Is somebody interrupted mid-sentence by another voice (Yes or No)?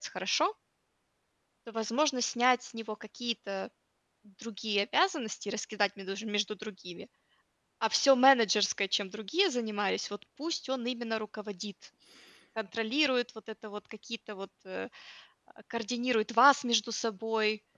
No